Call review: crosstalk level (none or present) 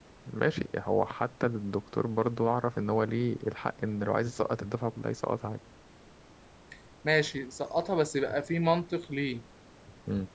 none